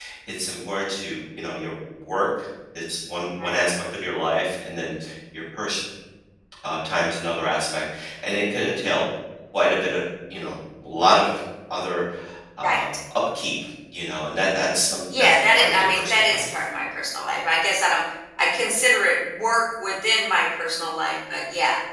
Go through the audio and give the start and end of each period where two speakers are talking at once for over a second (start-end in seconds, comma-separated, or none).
15.1-16.6